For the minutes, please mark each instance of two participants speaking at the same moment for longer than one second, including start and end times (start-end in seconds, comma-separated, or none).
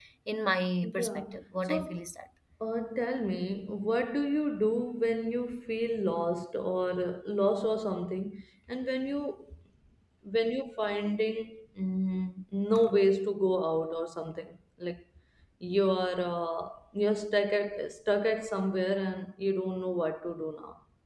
0.8-2.0